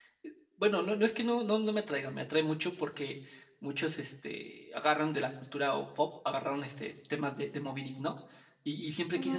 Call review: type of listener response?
listening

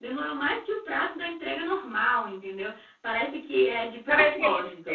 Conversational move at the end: taking over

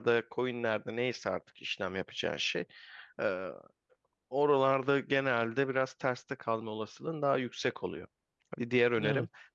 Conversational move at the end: listening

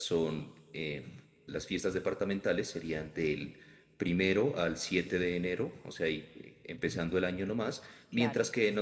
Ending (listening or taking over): listening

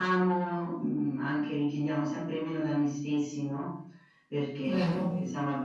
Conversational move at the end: listening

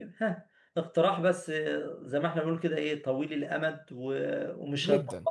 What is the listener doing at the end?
listening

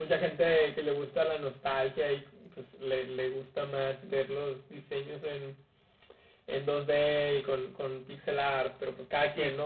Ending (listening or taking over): listening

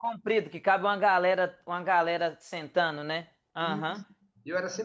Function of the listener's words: taking over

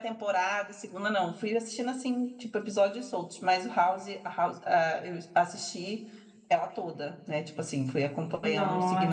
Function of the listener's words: taking over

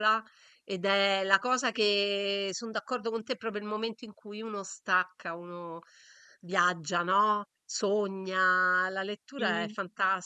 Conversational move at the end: listening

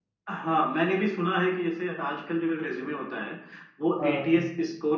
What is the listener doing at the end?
listening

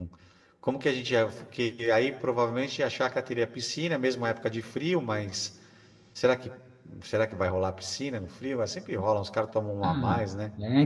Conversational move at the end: taking over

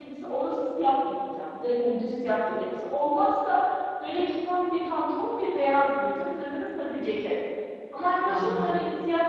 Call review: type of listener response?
listening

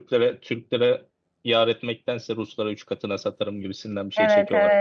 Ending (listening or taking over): taking over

